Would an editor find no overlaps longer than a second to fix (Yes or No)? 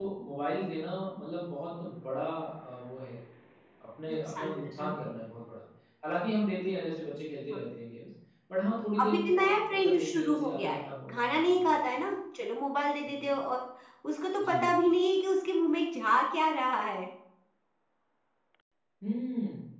No